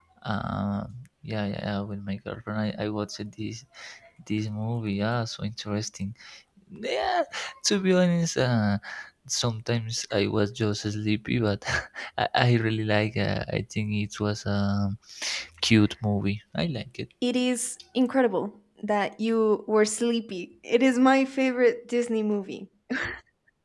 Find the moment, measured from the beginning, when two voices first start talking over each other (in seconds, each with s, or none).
none